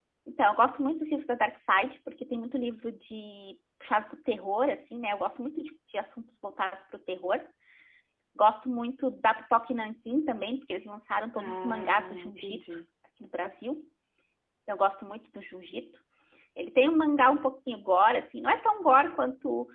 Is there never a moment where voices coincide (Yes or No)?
No